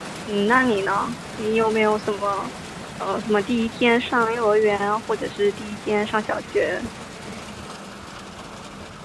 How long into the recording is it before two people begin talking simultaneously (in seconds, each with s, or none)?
none